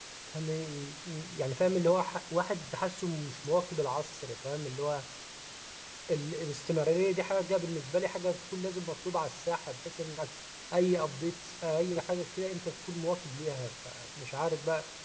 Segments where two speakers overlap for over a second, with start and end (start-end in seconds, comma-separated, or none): none